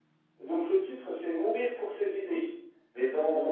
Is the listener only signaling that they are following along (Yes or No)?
Yes